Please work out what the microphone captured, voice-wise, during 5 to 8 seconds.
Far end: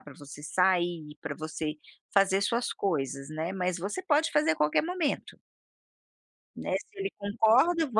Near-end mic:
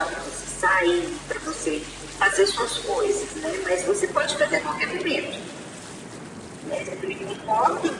echo only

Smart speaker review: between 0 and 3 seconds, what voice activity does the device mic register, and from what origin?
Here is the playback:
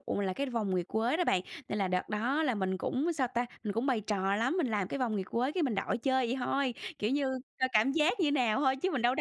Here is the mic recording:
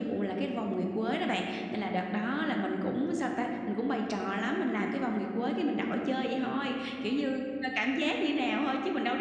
echo only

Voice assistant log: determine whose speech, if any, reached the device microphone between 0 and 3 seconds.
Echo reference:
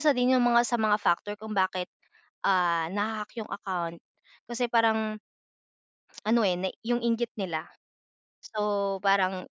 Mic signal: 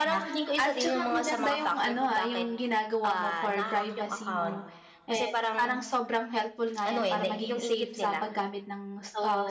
both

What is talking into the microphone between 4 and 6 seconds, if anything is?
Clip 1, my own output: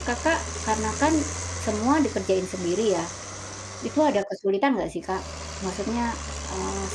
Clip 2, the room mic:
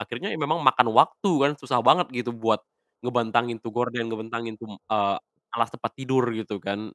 user only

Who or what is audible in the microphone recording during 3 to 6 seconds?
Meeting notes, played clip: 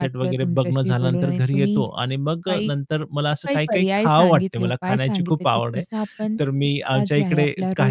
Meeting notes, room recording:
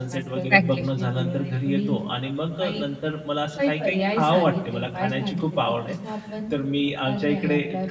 echo only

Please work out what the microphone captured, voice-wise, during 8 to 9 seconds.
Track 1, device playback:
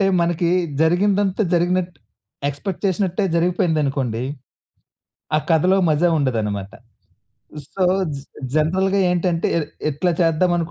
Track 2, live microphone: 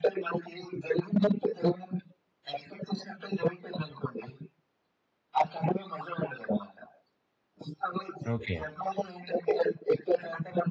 both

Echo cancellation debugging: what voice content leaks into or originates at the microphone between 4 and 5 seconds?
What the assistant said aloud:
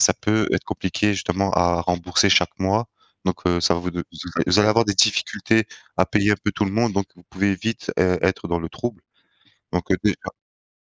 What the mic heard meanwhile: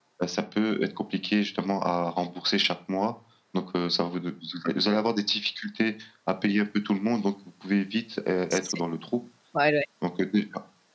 echo only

